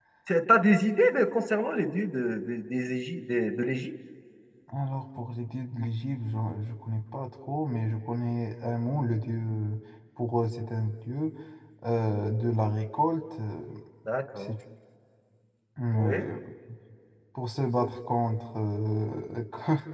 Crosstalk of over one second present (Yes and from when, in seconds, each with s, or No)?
No